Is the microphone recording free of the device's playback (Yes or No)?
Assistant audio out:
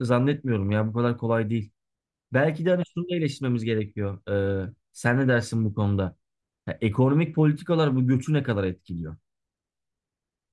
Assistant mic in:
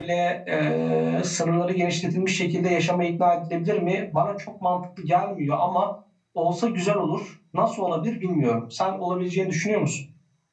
Yes